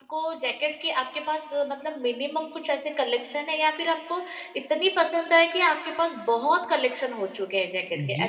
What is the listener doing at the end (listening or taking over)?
taking over